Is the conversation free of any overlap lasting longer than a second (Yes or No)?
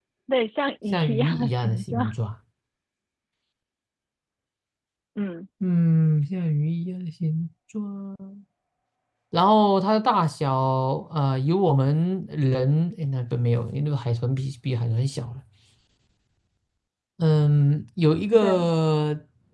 No